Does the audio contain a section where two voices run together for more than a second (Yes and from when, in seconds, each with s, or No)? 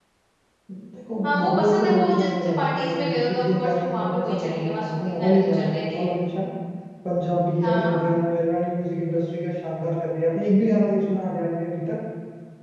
Yes, from 1.2 s